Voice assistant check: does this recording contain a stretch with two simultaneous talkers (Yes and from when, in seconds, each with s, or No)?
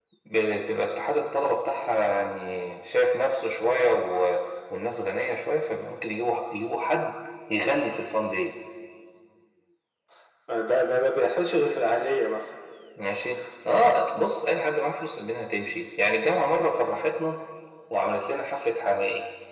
No